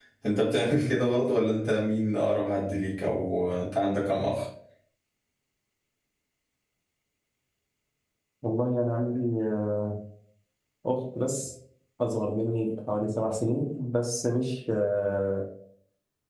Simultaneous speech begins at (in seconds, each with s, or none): none